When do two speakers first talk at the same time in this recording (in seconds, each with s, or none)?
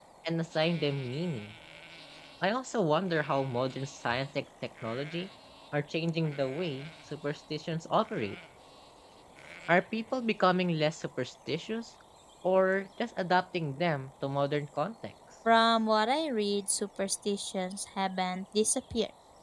none